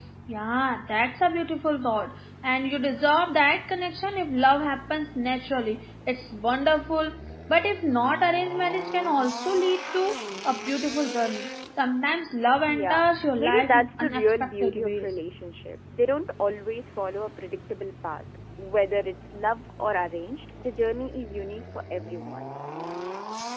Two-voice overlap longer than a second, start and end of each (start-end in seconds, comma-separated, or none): 12.7-15.1